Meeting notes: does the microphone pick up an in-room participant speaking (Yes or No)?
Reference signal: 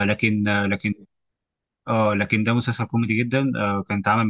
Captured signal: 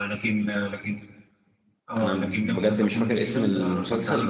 Yes